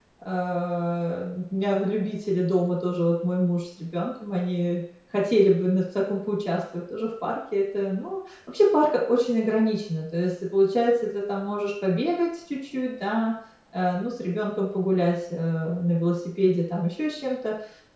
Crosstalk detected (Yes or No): No